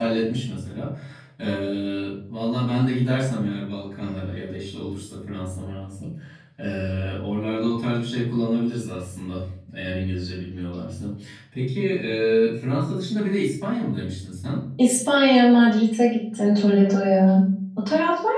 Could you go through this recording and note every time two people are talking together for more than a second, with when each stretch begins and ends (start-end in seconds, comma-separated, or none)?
none